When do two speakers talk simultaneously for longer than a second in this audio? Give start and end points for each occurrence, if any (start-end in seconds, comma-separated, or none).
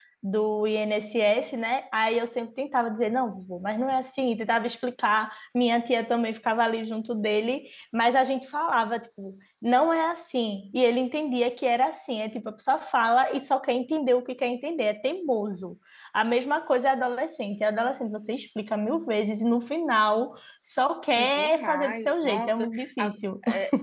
21.3-23.1